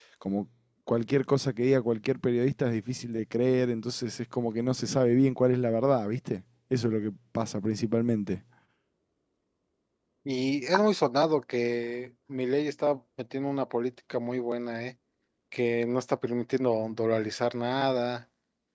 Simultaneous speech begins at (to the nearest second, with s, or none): none